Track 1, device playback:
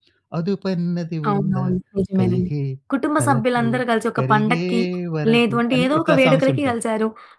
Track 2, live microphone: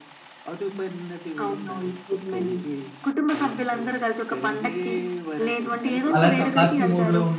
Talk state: both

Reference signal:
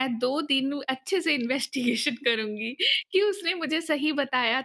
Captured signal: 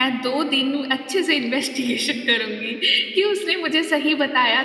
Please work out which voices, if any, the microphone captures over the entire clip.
echo only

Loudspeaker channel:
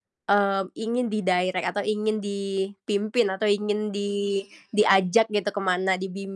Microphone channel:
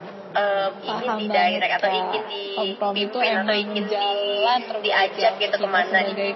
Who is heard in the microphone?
both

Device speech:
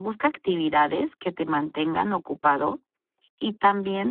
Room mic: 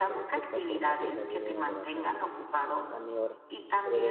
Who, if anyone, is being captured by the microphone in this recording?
both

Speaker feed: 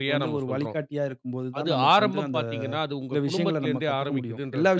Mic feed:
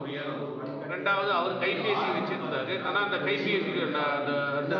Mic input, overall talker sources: both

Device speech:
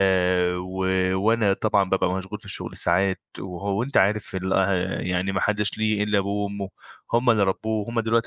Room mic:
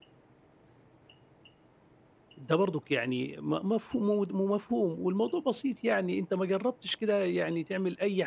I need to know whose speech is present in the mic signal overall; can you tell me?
user only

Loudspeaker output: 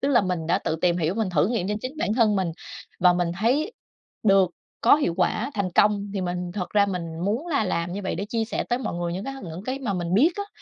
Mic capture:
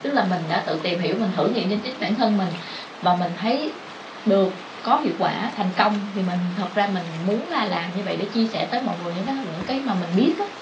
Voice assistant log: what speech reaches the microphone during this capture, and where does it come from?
echo only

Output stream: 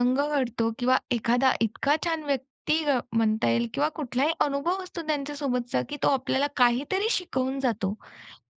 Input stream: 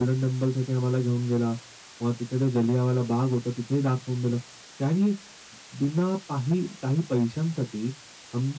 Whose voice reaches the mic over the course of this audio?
user only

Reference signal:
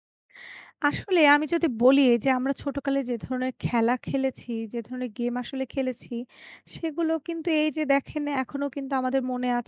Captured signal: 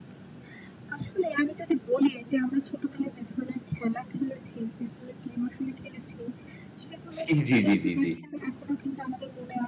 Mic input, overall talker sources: both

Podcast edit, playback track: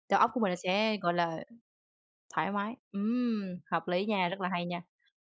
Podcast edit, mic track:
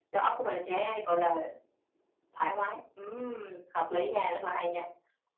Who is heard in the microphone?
echo only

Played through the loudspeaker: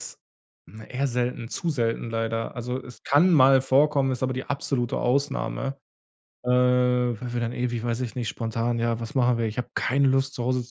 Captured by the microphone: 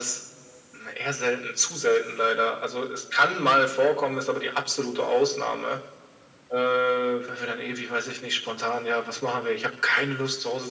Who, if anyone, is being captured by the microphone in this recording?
echo only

